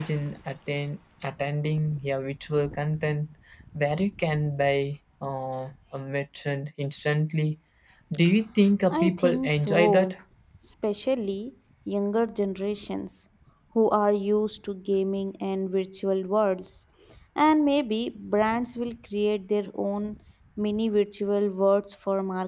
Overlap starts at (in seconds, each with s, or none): 8.9 s